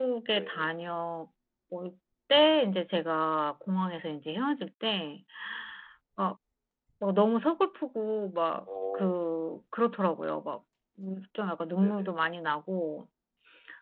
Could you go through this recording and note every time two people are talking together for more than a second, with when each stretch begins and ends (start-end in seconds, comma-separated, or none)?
none